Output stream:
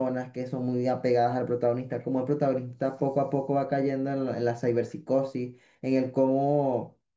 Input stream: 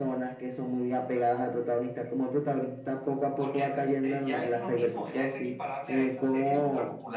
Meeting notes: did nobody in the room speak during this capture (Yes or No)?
No